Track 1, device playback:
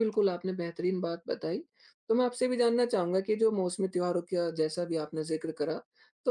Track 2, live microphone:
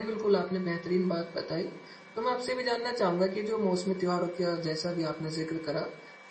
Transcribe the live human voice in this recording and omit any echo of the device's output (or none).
none